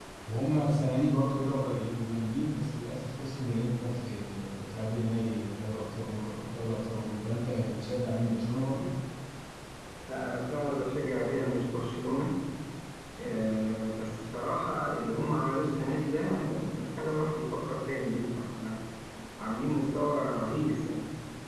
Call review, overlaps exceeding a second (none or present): none